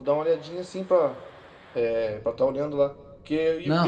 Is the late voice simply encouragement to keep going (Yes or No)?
Yes